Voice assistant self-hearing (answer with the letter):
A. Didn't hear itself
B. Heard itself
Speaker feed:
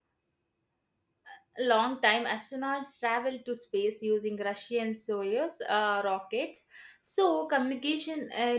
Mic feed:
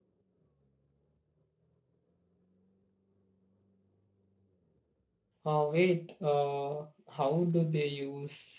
A